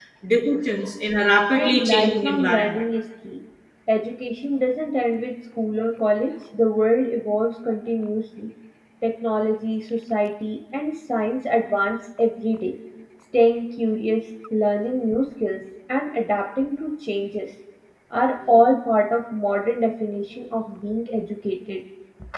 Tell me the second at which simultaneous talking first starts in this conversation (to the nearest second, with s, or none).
2 s